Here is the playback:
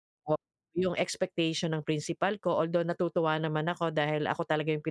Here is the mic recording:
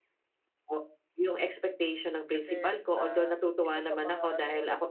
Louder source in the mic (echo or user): echo